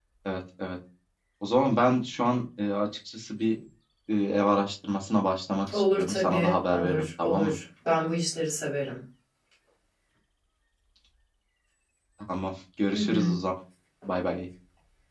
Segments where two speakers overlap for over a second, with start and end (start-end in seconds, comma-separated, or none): 5.7-7.5